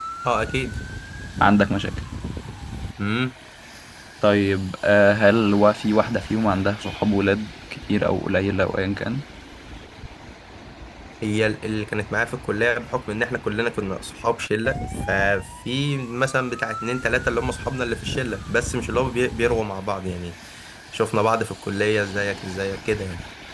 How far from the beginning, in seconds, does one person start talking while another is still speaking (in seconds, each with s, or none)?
none